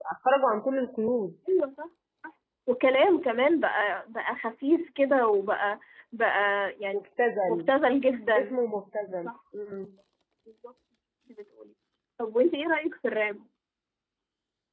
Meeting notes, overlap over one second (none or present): none